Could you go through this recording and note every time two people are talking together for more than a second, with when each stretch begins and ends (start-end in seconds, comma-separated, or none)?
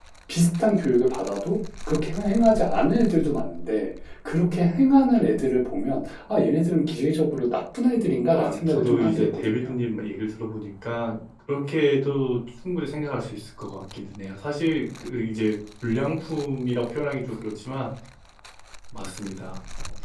8.3-9.7